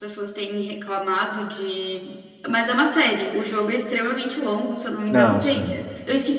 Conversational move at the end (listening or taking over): listening